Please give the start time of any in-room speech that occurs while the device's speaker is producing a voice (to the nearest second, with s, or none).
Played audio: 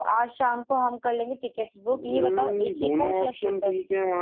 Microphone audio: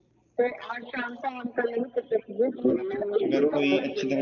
3 s